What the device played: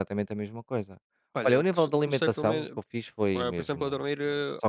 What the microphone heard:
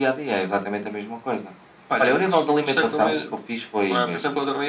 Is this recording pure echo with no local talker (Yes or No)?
Yes